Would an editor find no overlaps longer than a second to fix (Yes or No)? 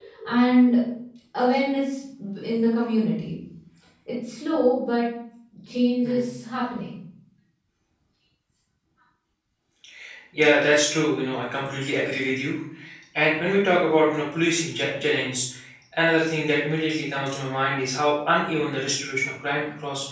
Yes